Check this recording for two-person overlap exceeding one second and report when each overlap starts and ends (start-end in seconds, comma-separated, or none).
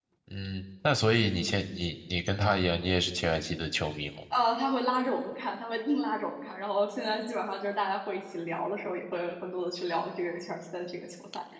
none